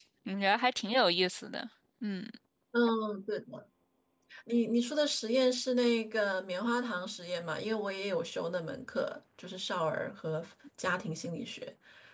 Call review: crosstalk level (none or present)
none